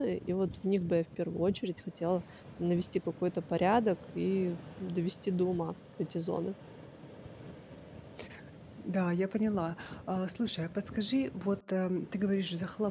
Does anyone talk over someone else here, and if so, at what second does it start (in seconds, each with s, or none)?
none